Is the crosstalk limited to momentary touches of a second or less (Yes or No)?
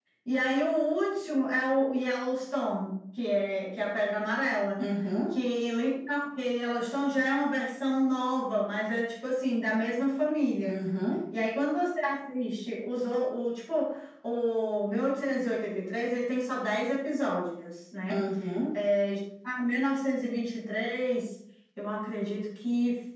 Yes